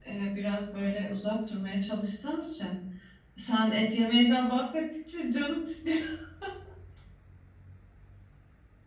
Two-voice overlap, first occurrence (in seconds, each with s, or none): none